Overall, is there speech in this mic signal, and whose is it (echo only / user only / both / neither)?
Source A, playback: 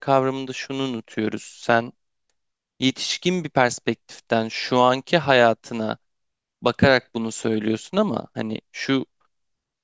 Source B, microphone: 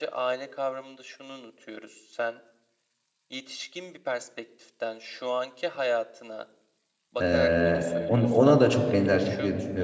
both